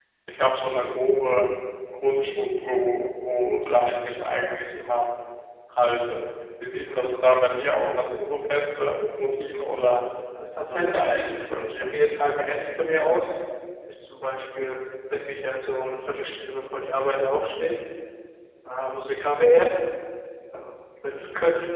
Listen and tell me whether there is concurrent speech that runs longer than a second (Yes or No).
Yes